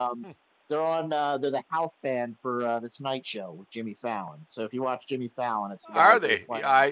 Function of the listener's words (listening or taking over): taking over